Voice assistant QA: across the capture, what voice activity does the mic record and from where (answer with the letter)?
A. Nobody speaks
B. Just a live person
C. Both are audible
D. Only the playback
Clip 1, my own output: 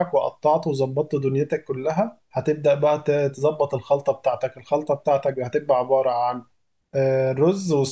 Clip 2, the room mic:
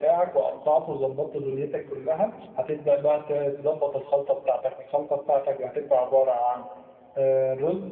D